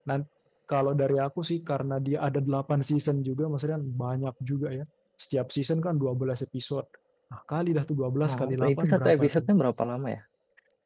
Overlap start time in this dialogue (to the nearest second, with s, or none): 8 s